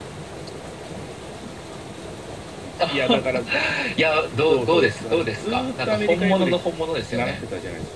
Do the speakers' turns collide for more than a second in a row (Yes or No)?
Yes